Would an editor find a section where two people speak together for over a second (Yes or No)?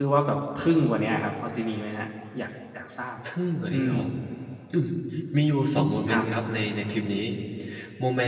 No